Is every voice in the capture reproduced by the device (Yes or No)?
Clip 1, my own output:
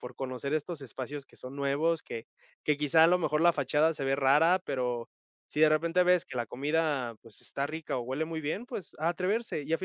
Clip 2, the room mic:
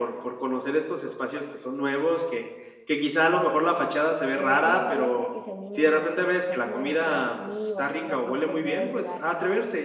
No